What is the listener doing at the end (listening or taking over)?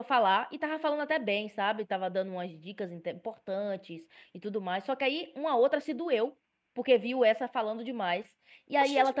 listening